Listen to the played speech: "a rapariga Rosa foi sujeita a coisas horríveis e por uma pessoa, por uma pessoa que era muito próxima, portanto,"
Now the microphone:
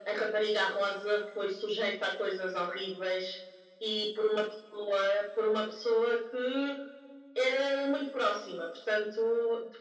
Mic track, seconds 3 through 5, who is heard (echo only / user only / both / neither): echo only